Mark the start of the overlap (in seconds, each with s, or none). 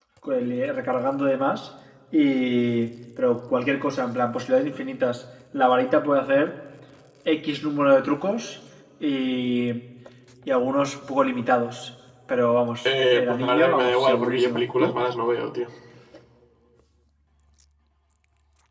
12.8 s